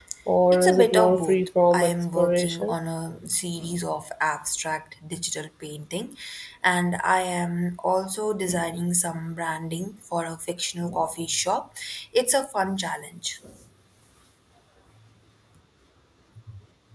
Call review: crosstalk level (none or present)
present